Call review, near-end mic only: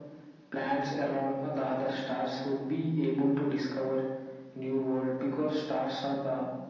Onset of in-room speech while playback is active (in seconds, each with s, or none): none